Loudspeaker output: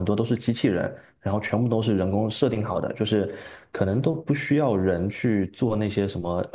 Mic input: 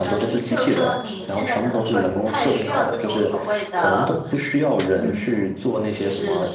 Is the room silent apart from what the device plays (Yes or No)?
No